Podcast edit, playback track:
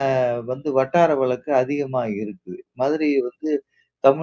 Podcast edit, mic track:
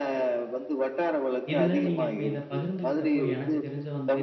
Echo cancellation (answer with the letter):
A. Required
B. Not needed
A